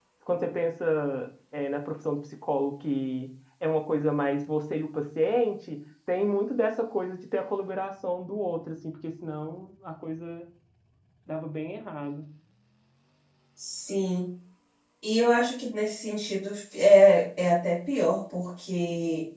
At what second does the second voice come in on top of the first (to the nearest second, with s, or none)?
none